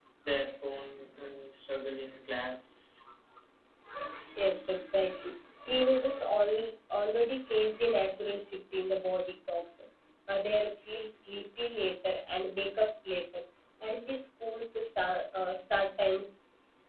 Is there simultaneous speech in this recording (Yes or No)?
No